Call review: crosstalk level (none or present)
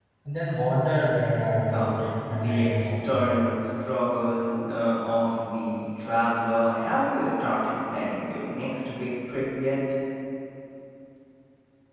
present